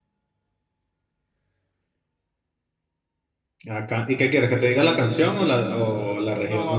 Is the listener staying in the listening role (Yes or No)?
No